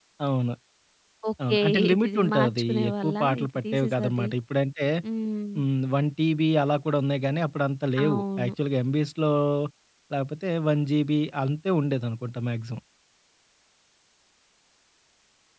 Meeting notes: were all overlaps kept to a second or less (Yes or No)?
No